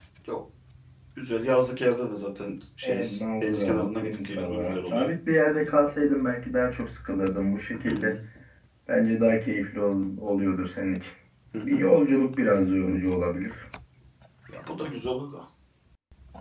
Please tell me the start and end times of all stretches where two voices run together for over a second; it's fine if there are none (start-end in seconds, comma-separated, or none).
2.8-5.1